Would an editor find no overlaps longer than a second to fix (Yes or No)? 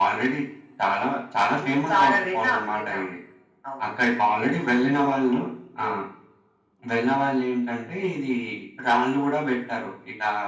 No